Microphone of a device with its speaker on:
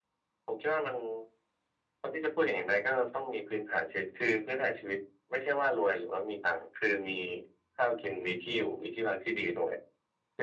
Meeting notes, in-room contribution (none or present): none